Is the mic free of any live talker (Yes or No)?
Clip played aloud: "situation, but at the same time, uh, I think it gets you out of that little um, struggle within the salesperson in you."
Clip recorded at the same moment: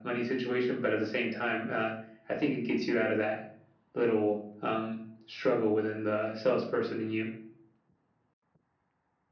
Yes